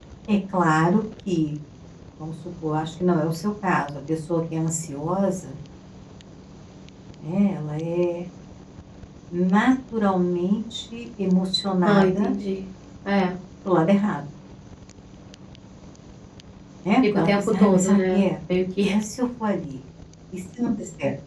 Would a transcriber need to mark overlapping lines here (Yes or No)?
Yes